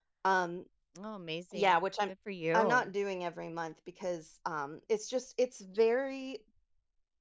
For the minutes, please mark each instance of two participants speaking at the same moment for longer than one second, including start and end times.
none

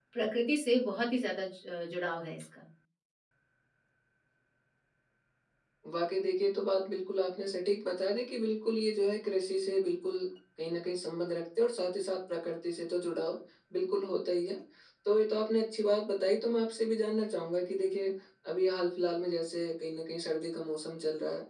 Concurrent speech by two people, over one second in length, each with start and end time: none

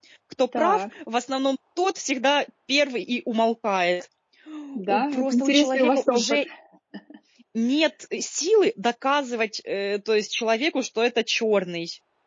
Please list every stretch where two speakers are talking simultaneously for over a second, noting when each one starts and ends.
4.9-6.4

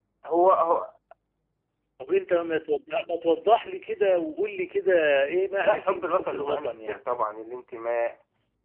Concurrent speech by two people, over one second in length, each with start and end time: 5.6-7.0

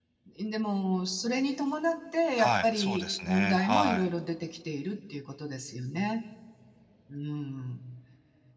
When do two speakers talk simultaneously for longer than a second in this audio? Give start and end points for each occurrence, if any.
2.4-4.1

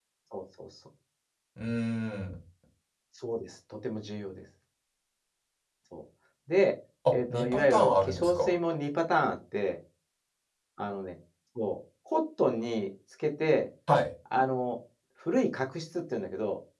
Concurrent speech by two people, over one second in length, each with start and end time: 7.1-8.5

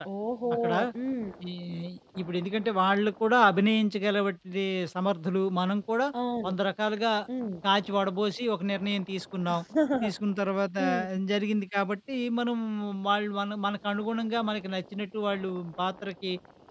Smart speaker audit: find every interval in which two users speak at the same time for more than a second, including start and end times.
none

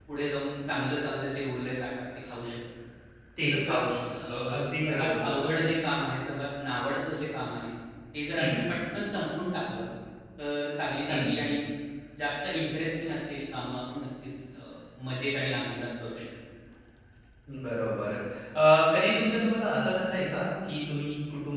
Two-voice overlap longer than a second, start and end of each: 3.5-5.4

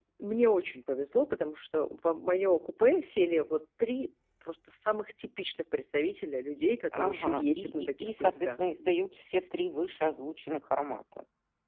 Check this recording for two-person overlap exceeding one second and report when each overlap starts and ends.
7.0-8.6

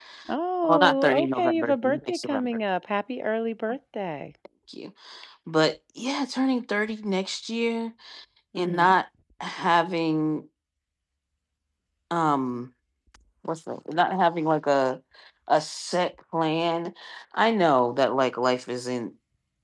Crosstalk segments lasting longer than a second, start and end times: 0.6-2.6

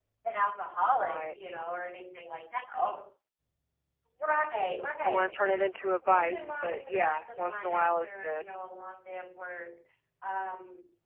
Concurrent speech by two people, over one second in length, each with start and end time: 6.0-8.4

